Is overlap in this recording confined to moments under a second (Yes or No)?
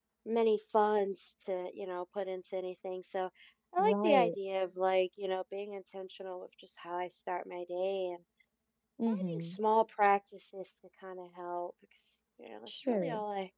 Yes